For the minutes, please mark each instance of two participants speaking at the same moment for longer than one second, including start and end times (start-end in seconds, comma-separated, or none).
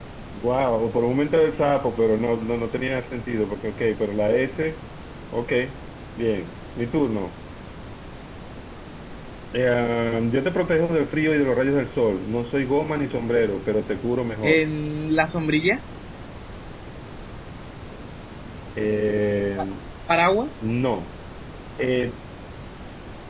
none